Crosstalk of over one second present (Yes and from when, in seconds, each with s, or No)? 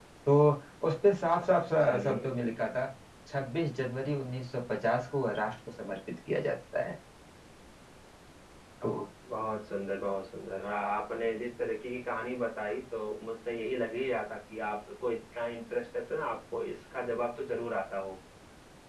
No